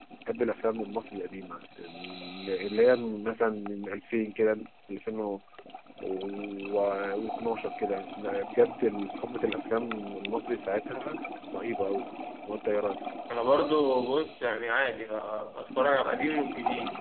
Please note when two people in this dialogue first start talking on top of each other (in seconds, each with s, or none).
none